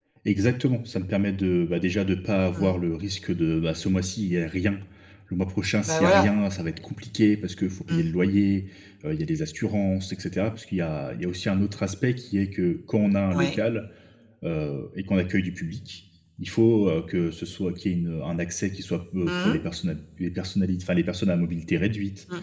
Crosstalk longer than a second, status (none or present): none